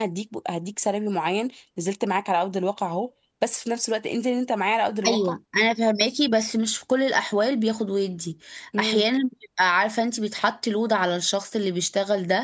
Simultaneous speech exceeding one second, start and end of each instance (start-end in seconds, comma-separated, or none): none